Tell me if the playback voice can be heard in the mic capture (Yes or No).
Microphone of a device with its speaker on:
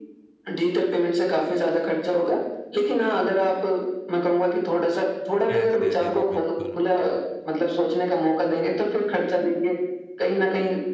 Yes